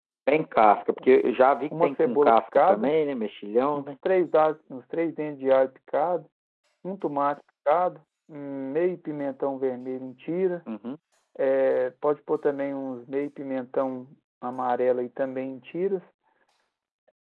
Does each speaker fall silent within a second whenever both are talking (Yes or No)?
No